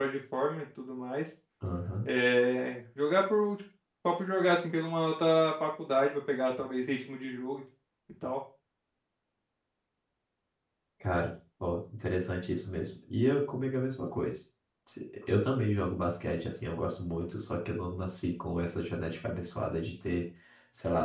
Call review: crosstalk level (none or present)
none